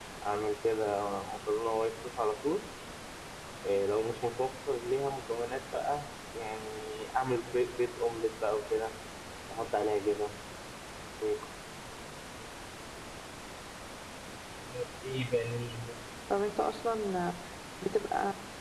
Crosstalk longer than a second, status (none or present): none